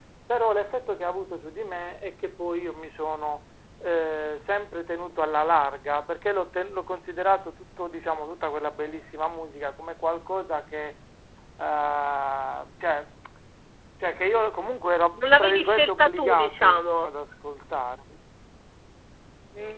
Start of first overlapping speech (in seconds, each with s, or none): 15.1 s